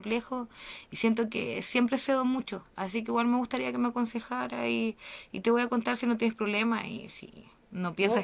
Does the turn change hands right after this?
Yes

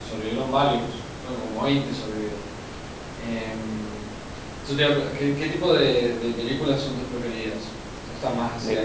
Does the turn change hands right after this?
No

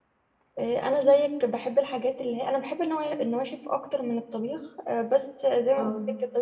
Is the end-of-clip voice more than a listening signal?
No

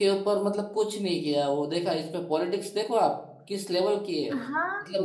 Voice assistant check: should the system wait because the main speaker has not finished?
No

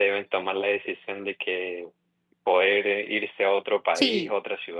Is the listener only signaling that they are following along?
Yes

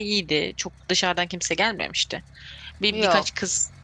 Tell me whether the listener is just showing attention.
Yes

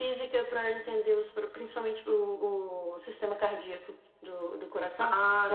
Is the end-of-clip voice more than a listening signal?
No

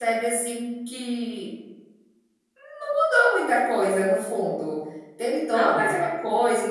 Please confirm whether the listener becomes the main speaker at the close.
No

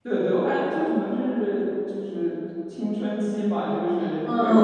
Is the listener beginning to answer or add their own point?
Yes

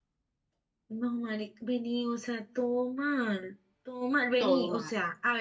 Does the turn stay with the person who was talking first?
Yes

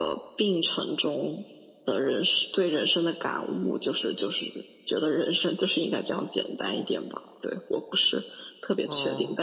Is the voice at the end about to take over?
No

